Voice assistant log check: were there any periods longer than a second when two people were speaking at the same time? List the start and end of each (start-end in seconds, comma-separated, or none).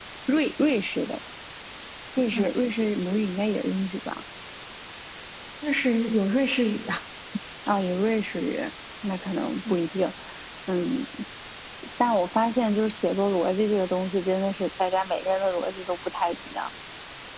none